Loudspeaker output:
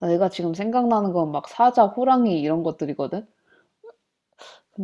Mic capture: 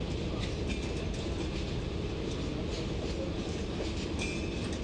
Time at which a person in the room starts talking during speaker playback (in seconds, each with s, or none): none